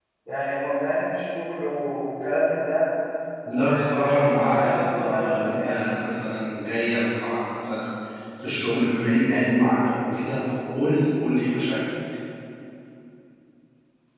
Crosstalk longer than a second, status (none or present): present